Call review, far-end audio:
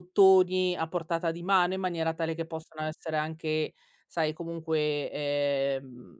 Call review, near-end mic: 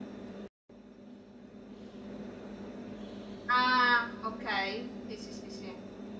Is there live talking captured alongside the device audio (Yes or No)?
Yes